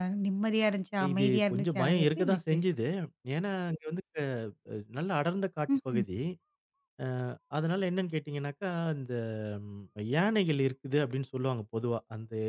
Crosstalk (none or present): present